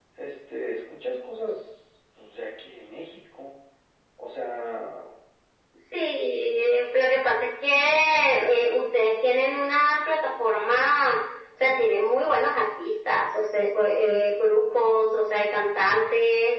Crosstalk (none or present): none